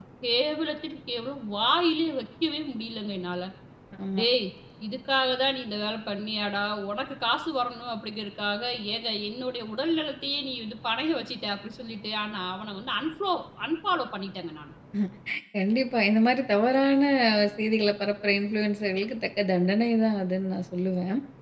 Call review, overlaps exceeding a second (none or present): none